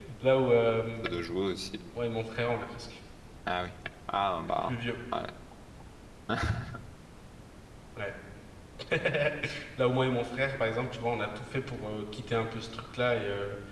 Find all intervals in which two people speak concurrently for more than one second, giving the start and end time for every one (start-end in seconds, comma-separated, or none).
none